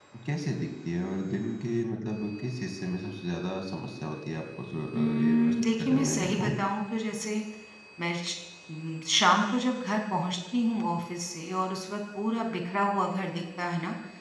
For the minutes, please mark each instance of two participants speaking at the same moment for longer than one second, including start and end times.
4.9-6.5

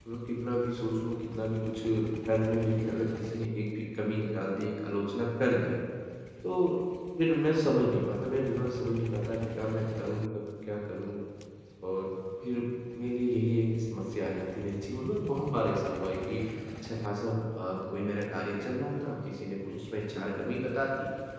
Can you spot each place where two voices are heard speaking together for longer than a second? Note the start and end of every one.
none

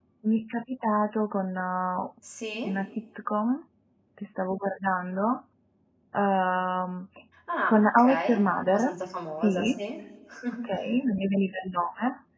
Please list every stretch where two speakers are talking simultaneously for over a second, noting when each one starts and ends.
7.7-8.9

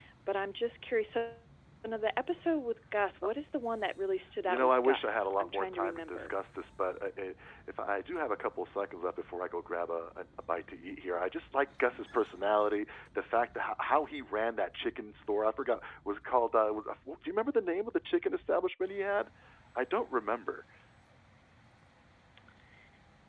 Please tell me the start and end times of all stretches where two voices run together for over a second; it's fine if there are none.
4.5-6.4

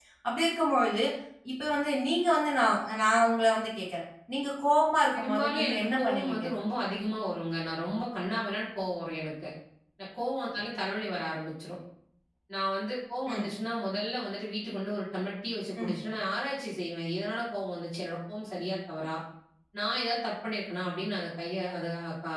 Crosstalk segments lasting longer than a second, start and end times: 5.1-6.5

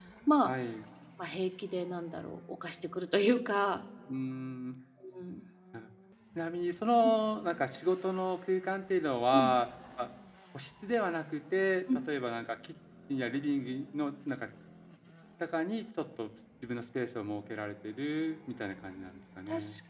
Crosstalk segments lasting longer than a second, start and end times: none

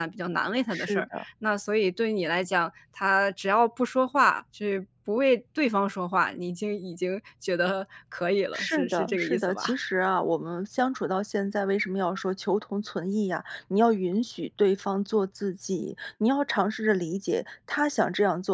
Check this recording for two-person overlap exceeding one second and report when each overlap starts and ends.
8.5-9.8

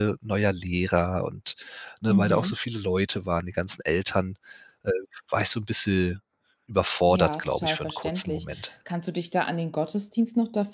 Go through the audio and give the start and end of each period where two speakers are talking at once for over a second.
7.1-8.4

